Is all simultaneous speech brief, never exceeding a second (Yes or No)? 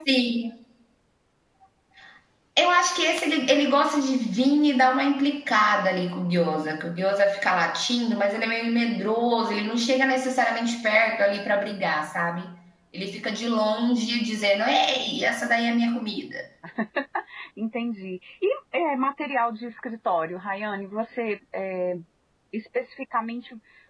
Yes